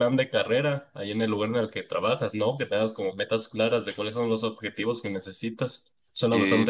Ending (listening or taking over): taking over